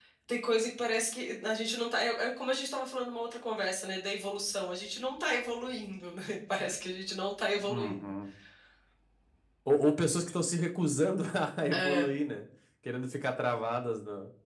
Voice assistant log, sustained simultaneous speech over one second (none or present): none